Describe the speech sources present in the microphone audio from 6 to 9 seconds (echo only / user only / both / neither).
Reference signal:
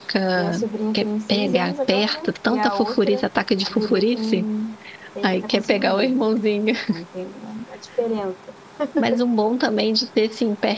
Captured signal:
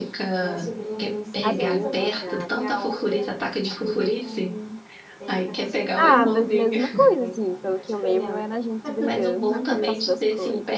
both